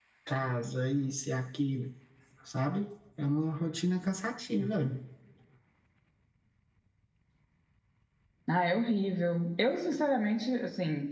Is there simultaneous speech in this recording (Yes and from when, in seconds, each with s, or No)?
No